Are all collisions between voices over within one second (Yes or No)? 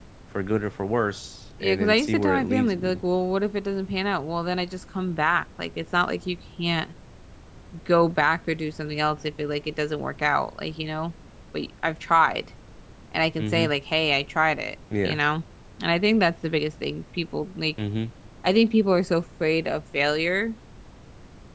No